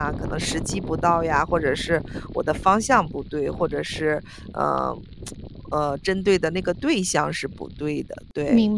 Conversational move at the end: taking over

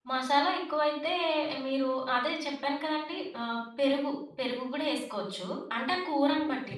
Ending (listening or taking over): listening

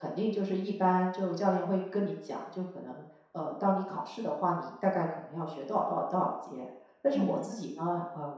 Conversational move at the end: listening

